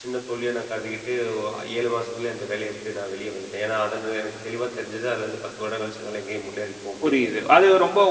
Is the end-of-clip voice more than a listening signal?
Yes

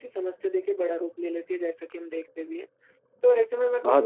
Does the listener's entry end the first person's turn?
No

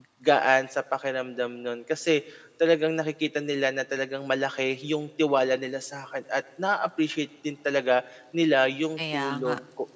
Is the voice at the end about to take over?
No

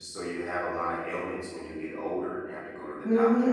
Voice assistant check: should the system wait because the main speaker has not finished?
No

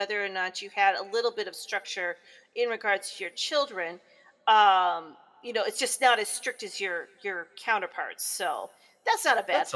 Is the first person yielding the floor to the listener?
Yes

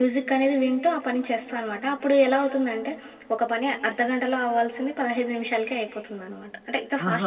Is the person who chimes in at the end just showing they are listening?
No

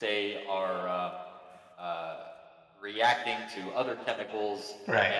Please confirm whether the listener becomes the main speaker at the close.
No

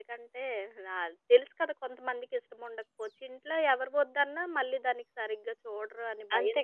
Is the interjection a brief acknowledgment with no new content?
No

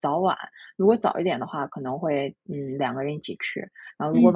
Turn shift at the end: No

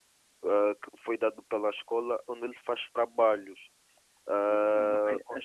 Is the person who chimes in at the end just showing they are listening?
No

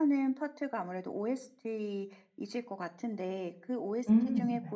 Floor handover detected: No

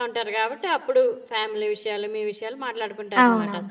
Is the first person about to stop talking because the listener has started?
Yes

